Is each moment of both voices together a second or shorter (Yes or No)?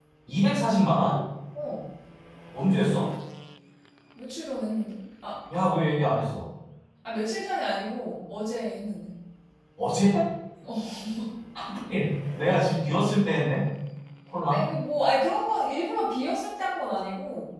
Yes